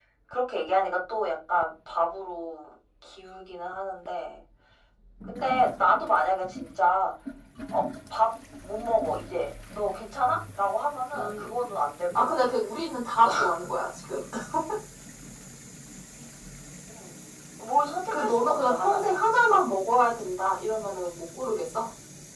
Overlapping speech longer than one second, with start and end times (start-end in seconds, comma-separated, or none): 18.1-19.6